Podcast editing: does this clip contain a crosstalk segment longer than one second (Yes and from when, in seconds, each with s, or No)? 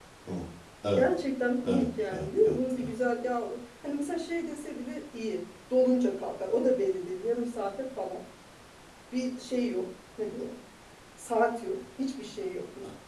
Yes, from 1.6 s